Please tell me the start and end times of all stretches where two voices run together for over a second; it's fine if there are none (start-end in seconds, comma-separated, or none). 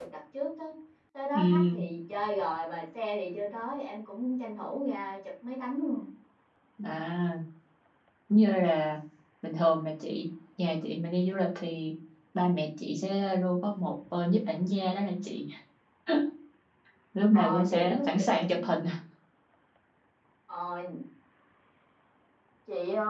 17.3-18.7